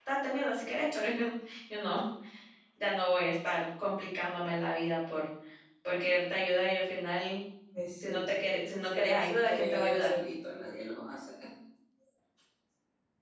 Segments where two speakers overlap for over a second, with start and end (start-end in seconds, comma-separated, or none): 8.8-10.2